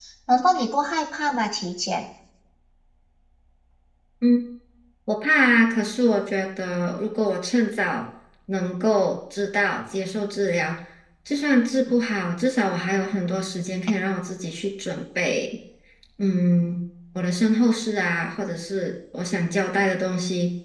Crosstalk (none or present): none